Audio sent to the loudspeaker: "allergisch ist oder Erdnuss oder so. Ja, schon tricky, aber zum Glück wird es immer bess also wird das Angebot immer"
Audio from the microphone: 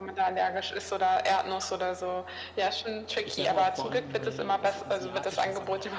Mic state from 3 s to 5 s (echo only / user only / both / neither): both